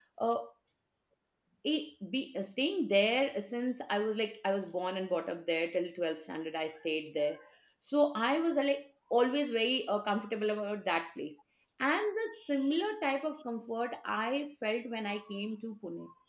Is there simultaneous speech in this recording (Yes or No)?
No